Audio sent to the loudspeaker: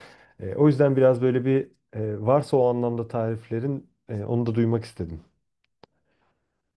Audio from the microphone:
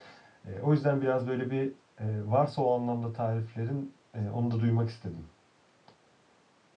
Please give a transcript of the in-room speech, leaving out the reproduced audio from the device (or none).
none